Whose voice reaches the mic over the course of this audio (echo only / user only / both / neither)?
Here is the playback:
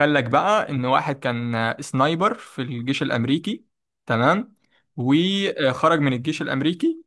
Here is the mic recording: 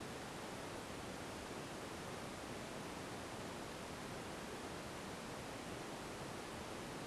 neither